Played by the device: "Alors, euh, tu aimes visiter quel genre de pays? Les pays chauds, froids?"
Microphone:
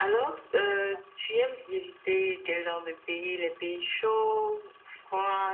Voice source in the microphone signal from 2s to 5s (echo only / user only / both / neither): echo only